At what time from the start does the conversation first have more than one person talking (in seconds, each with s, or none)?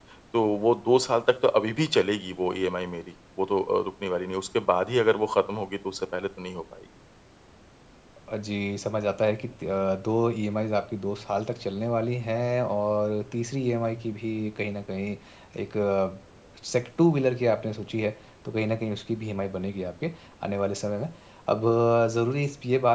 none